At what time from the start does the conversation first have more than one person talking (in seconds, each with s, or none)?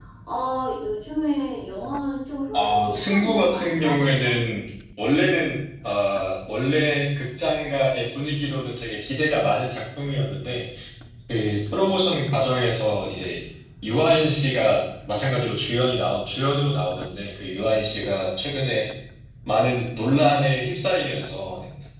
2.5 s